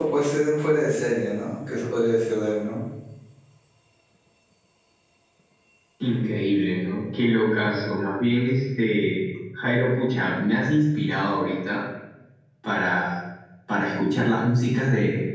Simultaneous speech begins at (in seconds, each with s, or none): none